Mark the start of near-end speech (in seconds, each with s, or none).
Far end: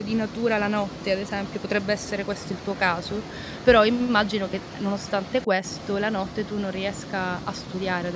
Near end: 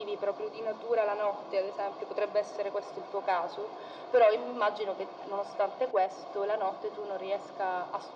none